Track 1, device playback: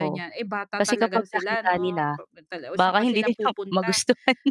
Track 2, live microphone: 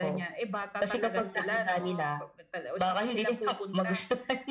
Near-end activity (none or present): present